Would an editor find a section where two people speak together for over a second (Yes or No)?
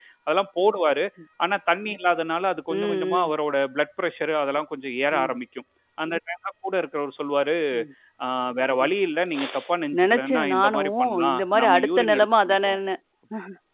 Yes